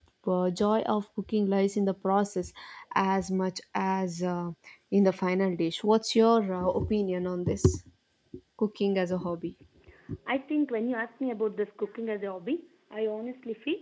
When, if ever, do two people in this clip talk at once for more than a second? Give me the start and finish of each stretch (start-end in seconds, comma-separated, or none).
none